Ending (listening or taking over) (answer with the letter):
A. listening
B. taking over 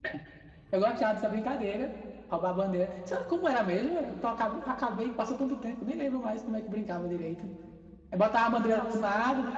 A